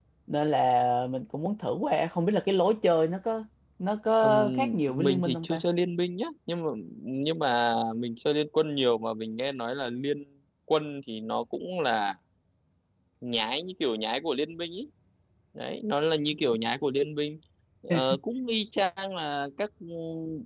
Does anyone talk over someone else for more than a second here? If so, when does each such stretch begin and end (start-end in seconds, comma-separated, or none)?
4.2-5.6